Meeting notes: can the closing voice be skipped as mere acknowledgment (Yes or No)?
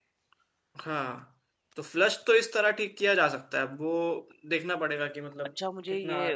No